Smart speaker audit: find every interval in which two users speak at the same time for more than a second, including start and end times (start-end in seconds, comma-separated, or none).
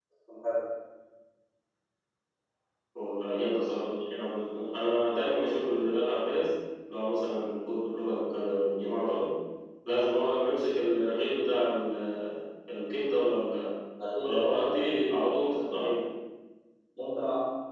14.2-16.0